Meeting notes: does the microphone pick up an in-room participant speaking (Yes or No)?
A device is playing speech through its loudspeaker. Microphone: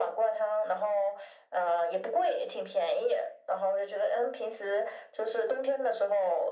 No